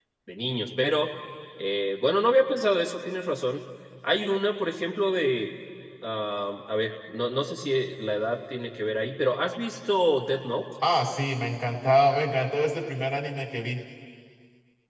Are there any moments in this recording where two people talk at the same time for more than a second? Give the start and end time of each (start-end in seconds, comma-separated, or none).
none